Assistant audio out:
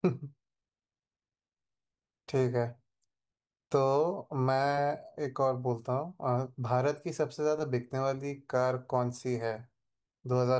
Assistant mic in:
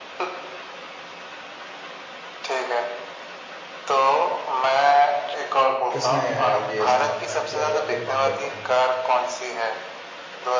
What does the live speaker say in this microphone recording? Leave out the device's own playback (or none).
किसने अ, ये स्थापना किया है या फिर फाउंडर कौन है